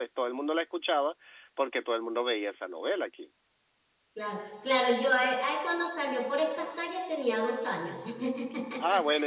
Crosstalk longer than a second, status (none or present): none